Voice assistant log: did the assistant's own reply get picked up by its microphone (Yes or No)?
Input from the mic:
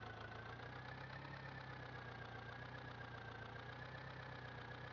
No